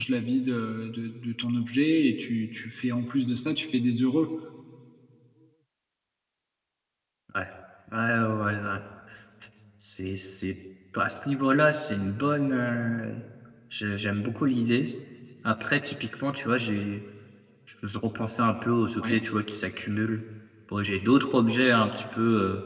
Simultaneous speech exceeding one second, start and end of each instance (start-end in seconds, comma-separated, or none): none